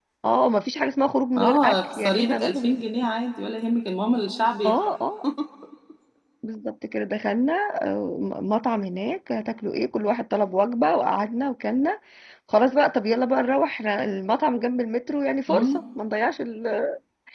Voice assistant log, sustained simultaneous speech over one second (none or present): present